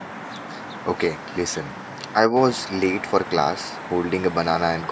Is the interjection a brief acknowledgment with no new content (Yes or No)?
Yes